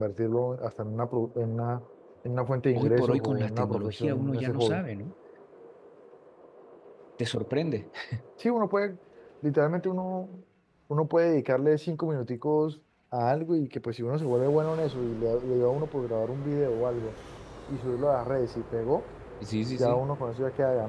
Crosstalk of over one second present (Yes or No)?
Yes